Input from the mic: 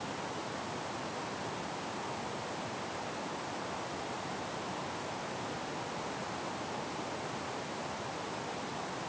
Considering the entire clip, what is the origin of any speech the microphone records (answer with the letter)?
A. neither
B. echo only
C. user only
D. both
A